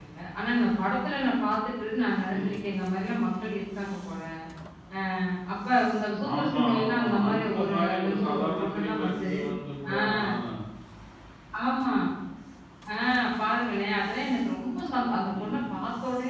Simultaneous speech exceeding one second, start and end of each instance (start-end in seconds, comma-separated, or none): 6.3-9.3